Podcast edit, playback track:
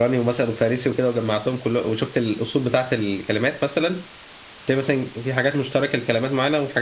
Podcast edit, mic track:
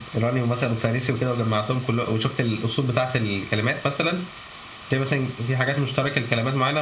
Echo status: present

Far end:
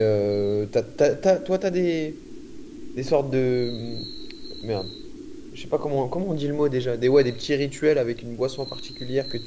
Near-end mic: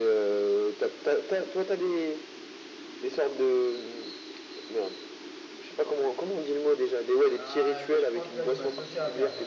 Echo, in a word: present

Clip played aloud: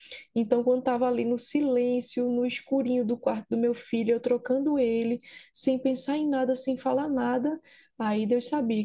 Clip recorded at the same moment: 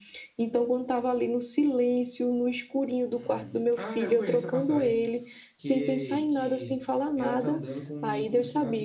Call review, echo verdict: present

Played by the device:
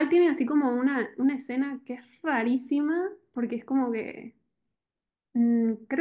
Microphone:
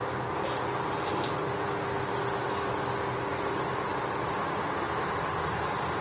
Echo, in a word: none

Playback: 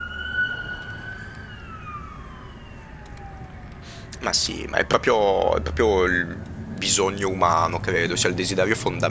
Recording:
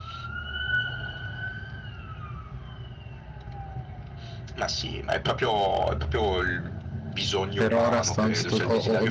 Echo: present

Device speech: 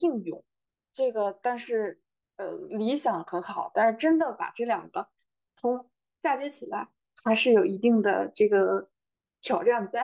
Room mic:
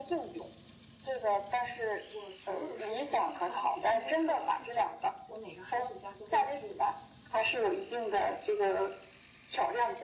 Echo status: present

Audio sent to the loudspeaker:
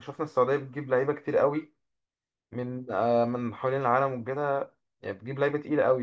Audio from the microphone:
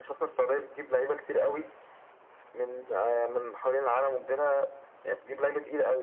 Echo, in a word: present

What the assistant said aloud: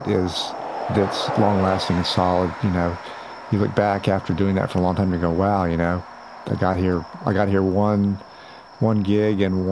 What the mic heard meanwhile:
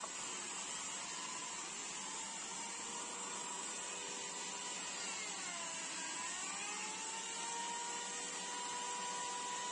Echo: none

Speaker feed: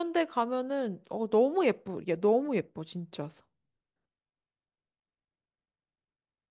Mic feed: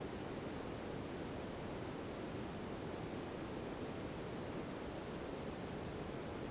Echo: none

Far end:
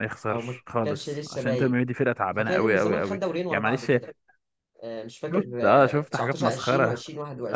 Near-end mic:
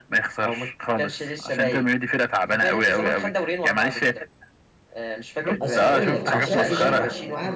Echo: present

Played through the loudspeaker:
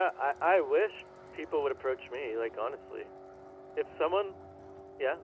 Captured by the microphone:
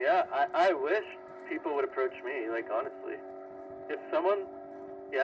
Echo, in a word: present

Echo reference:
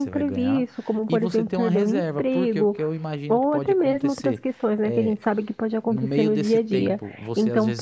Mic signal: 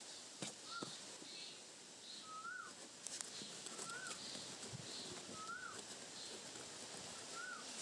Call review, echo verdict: none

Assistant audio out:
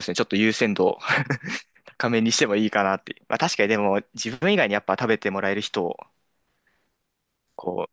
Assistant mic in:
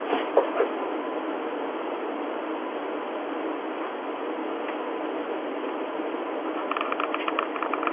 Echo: none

